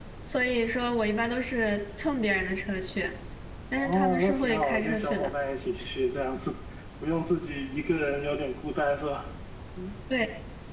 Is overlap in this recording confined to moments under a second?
No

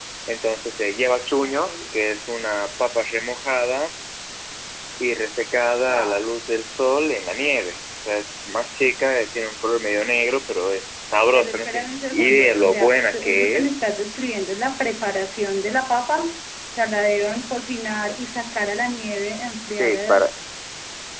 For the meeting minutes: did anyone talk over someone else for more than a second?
Yes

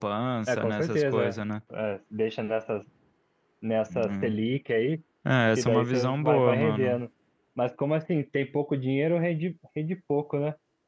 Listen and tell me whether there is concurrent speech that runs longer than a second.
Yes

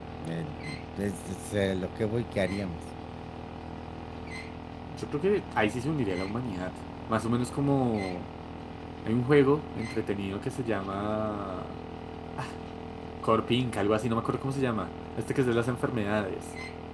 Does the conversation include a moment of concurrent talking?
No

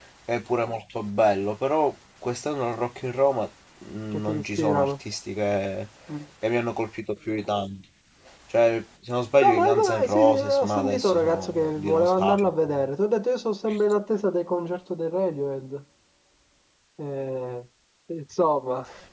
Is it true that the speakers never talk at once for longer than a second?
No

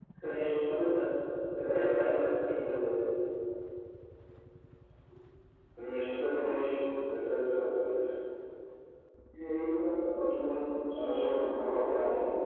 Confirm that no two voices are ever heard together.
No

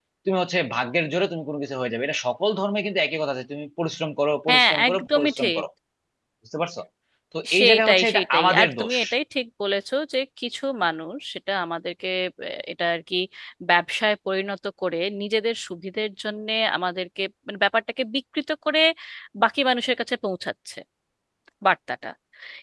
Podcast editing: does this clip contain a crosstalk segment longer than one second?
Yes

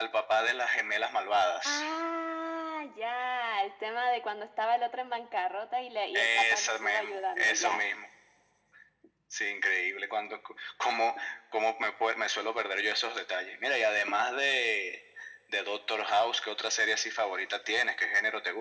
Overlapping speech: Yes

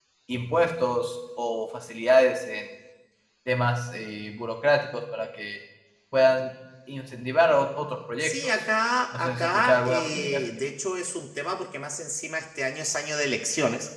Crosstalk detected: Yes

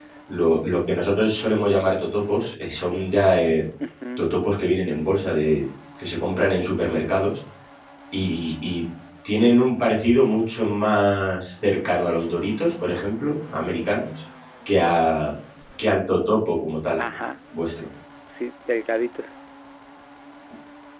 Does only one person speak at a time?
Yes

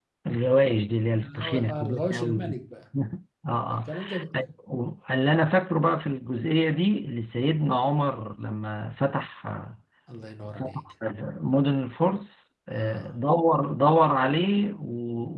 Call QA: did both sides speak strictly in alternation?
No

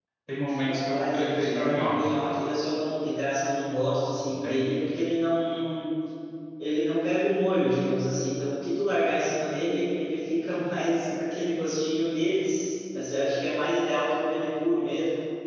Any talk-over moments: Yes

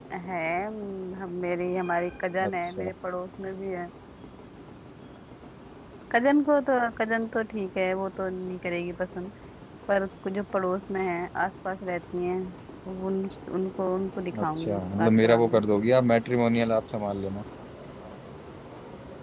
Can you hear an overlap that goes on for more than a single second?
Yes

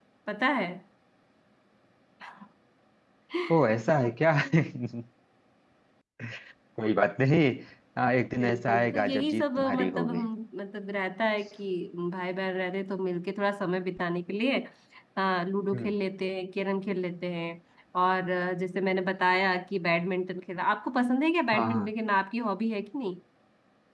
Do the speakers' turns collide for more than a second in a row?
Yes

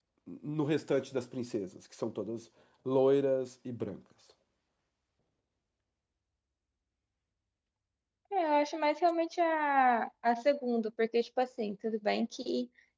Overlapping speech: No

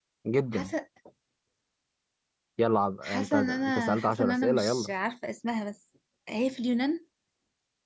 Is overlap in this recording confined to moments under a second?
No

